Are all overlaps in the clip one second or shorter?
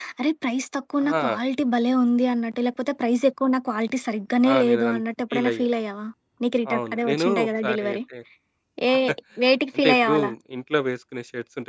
No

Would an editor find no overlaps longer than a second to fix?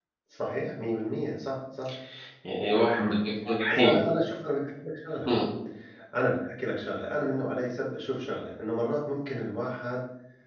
Yes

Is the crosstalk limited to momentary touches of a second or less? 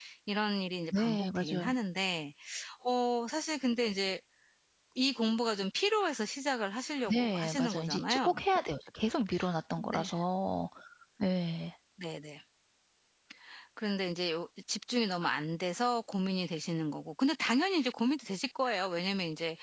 No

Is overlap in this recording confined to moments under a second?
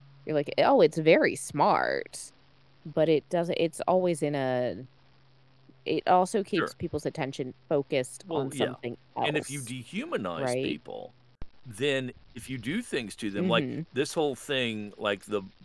Yes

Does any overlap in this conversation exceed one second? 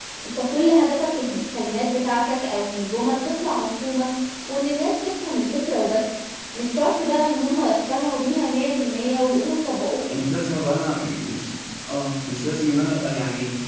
No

